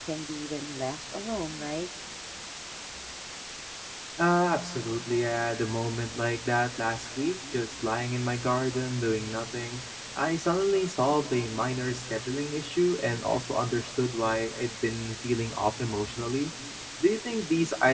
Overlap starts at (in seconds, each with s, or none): none